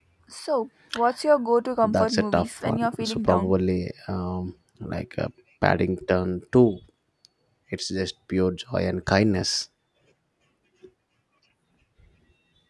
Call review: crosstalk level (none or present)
present